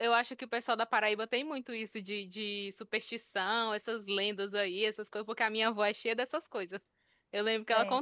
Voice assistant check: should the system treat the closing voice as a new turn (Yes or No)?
No